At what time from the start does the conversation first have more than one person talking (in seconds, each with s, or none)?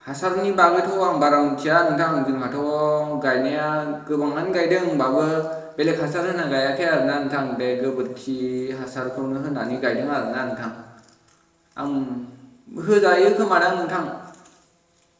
none